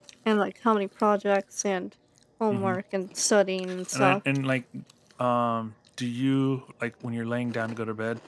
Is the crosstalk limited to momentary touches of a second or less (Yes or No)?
Yes